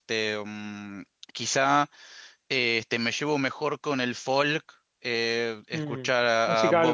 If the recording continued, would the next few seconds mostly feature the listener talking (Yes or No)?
Yes